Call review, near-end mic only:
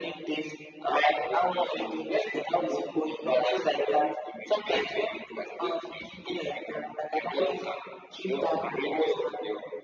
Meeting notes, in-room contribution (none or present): none